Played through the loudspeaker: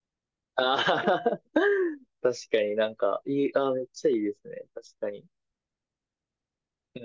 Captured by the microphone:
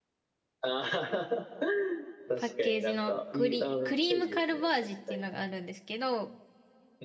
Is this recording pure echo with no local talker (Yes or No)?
No